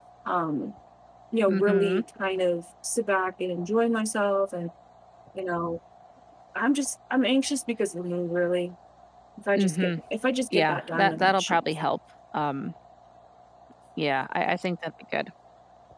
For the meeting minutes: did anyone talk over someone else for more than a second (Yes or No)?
Yes